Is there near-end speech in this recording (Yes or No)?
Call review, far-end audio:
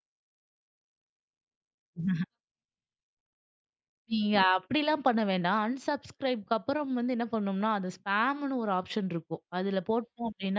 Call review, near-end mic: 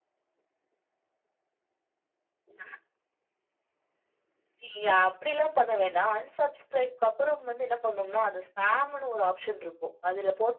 No